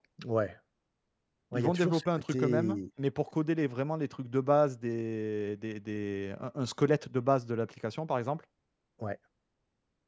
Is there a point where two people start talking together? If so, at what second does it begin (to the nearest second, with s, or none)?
2 s